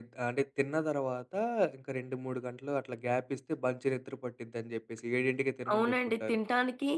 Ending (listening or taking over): taking over